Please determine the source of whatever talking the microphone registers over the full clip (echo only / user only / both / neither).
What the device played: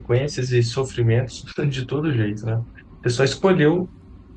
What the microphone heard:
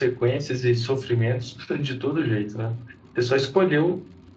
echo only